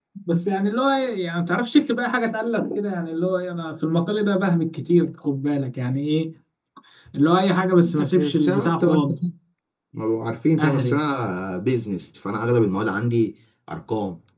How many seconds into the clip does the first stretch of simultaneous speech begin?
7.8 s

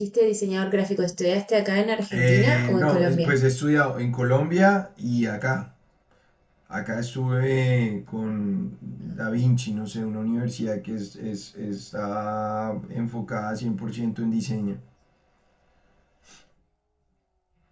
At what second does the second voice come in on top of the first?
2.1 s

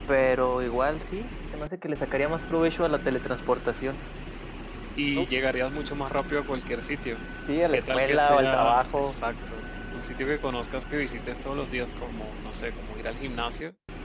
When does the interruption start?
7.7 s

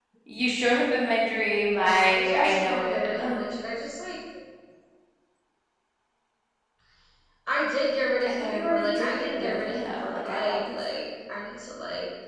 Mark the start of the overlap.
1.3 s

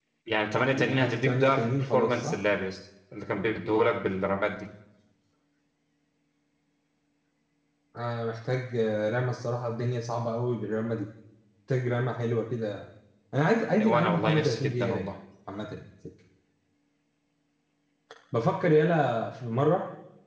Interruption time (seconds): 0.7 s

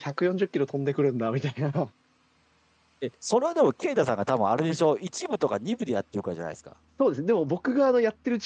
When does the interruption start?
none

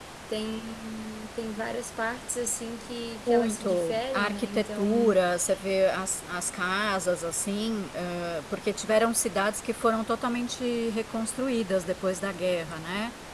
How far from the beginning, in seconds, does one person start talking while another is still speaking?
3.3 s

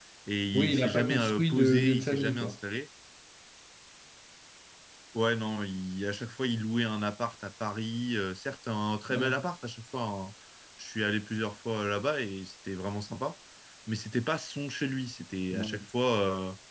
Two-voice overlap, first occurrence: 0.5 s

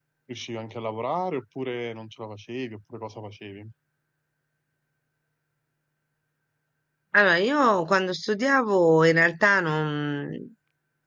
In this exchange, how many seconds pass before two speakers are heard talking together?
none

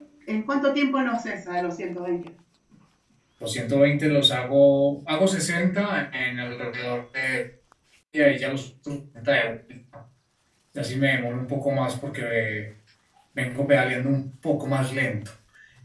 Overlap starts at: none

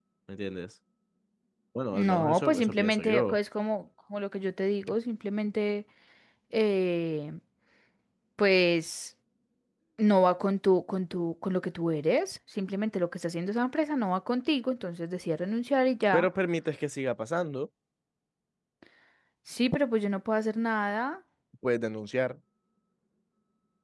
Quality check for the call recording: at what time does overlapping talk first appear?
1.9 s

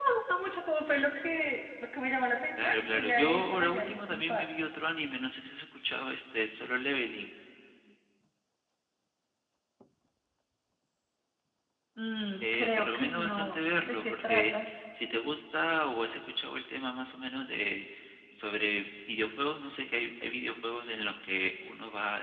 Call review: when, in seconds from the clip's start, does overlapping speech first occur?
2.6 s

